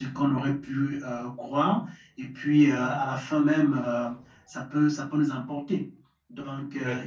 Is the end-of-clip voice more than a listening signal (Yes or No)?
No